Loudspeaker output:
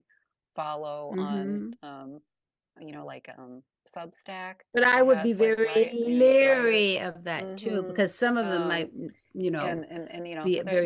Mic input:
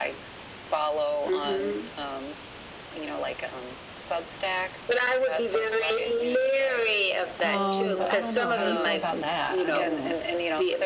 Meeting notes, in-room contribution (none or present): present